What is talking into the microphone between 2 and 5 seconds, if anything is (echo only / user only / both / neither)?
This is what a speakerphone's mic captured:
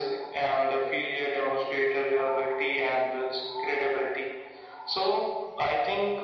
echo only